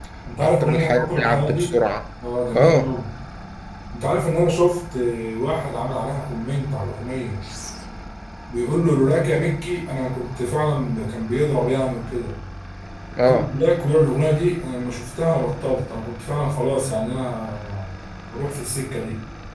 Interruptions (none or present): present